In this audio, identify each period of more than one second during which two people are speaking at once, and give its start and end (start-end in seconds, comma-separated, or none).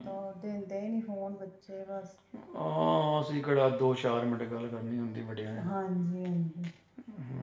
none